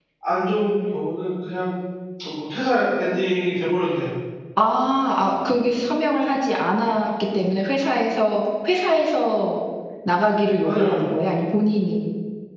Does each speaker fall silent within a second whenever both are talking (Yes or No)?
Yes